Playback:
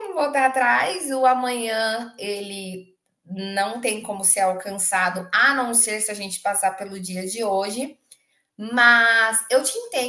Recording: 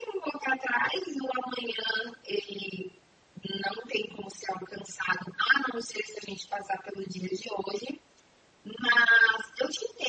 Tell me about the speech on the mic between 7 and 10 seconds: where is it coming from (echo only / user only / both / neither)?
echo only